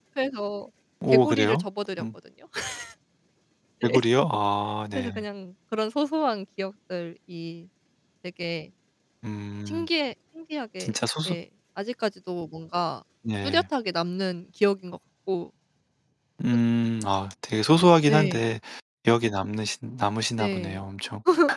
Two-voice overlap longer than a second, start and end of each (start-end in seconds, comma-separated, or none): none